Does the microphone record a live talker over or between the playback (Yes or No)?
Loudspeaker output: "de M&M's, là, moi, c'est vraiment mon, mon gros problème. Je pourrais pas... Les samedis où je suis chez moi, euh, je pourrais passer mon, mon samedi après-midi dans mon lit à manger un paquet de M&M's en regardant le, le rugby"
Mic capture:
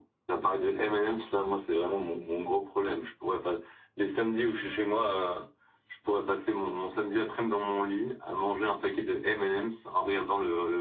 No